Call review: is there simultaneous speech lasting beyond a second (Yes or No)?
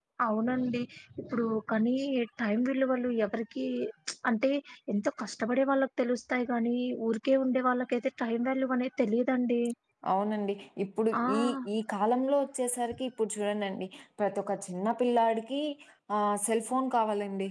No